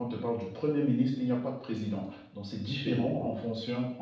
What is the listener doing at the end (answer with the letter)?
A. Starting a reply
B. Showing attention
B